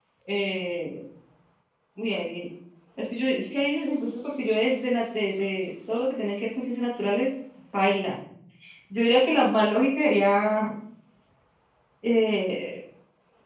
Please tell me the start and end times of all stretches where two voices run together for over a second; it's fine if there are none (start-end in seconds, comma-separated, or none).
none